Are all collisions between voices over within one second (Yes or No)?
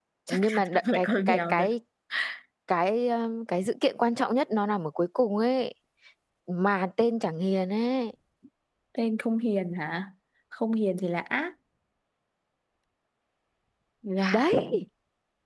No